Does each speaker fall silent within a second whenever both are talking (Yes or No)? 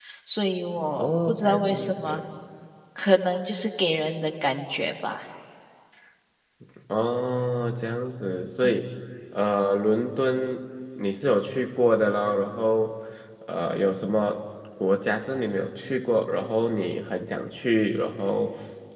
No